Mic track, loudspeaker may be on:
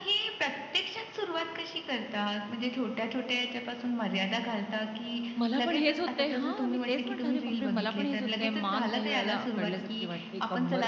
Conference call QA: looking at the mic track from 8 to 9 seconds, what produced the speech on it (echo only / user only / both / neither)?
both